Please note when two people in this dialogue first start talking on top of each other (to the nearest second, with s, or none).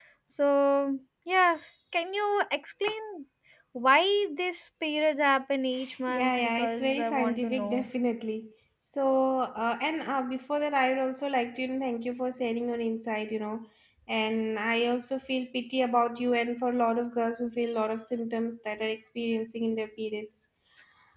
6 s